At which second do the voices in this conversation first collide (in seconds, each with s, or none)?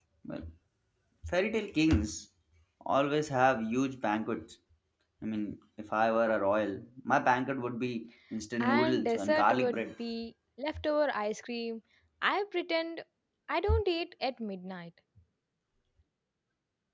8.6 s